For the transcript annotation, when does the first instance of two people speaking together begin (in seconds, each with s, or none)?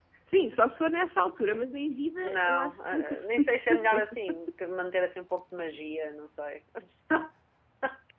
2.2 s